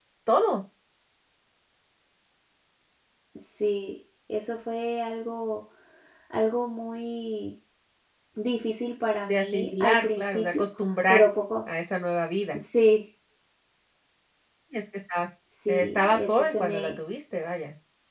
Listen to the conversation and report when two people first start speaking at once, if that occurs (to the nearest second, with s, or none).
9 s